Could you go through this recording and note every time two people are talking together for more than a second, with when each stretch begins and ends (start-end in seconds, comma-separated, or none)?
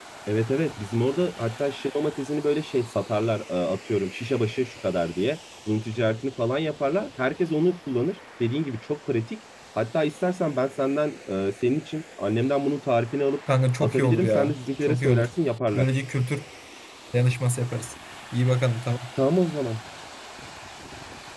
13.8-15.3